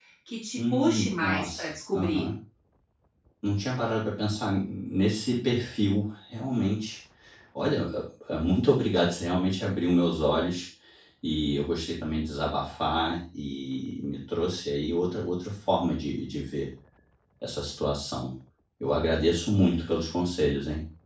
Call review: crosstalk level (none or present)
present